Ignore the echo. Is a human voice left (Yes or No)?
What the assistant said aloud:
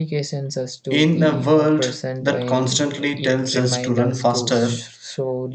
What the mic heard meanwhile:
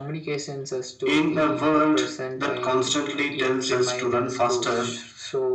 No